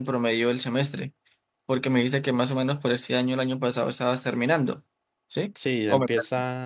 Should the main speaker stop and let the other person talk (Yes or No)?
Yes